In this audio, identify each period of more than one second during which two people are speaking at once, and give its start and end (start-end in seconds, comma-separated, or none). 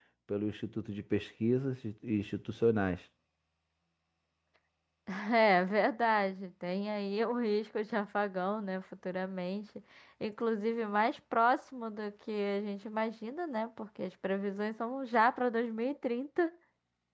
none